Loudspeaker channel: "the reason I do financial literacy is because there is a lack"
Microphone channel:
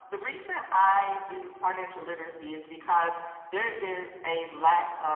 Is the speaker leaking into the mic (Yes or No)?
Yes